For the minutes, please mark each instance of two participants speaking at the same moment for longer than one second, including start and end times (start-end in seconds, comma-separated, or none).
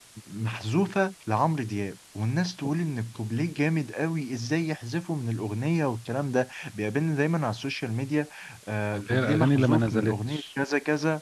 8.9-10.4